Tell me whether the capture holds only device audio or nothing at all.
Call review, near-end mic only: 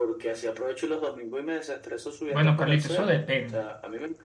No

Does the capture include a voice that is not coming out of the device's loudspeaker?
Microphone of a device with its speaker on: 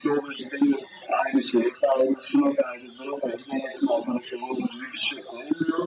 No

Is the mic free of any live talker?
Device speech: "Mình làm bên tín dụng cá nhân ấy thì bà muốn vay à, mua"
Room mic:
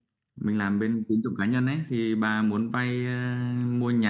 Yes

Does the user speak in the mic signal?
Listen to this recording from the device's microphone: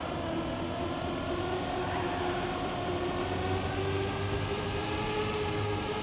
No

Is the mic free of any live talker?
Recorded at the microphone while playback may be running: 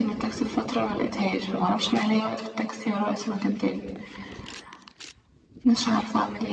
Yes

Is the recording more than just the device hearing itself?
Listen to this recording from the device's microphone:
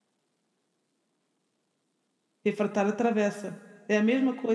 Yes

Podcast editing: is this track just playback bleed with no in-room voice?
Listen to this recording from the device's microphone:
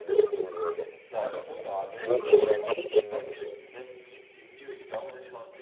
No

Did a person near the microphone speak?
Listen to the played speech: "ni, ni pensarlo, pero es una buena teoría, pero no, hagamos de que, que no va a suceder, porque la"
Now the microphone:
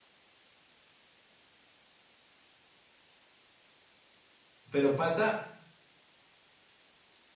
Yes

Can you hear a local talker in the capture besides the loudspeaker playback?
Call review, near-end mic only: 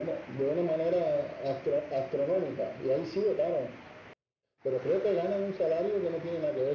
No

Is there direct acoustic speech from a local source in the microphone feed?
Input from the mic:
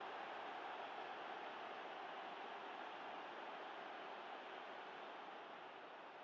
No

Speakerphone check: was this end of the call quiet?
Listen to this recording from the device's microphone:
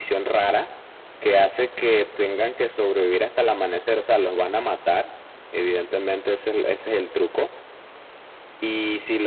Yes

